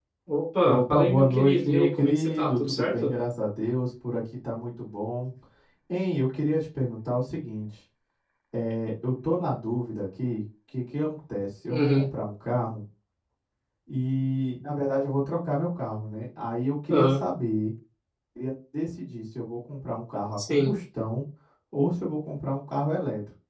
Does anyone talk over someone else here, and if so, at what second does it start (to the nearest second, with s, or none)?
1 s